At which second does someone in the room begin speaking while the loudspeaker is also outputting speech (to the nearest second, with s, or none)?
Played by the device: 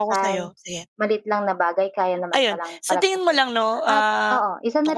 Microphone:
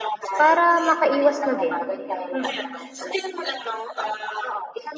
0 s